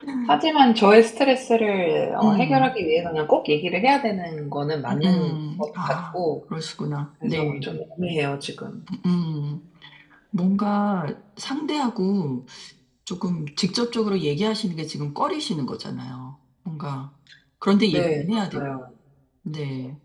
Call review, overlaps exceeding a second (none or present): present